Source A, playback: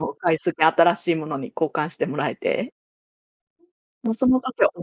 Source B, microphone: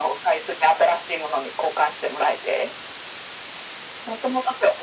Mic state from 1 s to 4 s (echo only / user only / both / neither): echo only